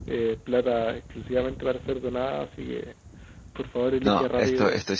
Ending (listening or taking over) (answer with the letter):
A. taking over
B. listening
A